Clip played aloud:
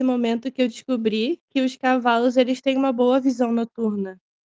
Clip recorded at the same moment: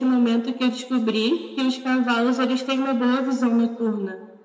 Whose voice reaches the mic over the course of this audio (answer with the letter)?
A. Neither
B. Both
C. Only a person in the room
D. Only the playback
D